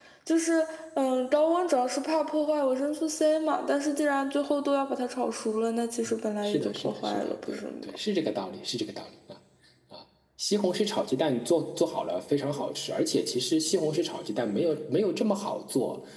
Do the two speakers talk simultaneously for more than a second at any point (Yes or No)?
Yes